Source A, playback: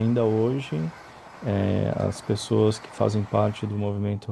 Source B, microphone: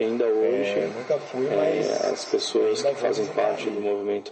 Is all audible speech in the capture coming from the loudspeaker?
No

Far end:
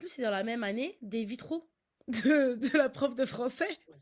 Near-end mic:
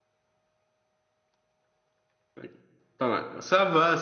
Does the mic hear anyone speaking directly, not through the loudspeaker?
Yes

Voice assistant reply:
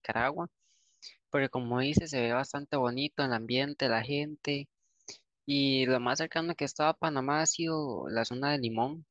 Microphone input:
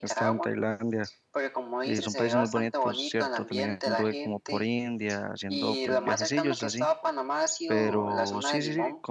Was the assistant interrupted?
Yes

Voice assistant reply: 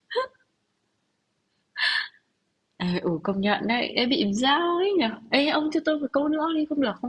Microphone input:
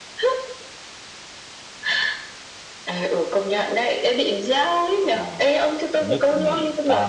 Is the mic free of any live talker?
No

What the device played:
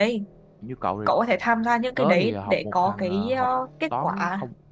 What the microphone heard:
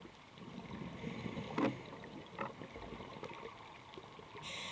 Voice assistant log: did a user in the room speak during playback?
No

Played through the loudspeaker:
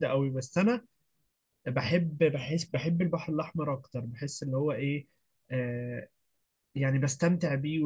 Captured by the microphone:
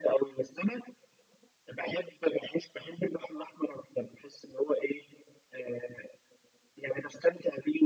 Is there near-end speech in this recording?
No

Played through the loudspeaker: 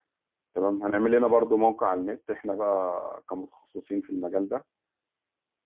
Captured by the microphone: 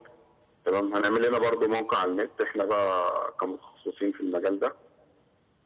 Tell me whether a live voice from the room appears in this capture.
No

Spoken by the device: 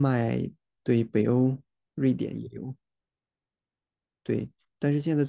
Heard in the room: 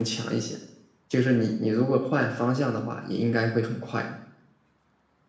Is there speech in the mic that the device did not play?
Yes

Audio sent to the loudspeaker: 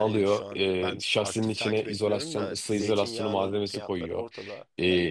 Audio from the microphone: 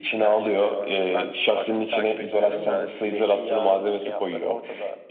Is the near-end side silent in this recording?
Yes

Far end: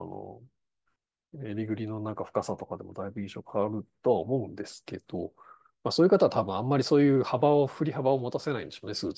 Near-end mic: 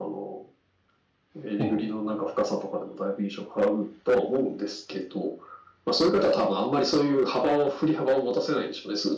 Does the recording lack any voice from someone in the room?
No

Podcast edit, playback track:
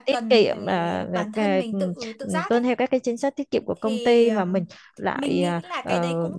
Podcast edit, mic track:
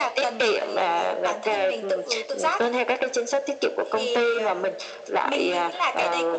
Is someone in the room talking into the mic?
No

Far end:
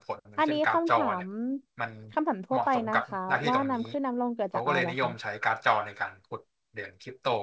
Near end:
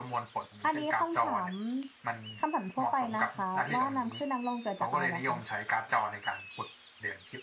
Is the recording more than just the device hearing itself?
No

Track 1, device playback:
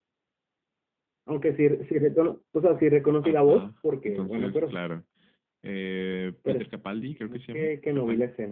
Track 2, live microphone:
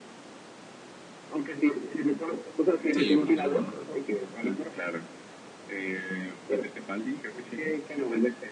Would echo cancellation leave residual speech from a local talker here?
Yes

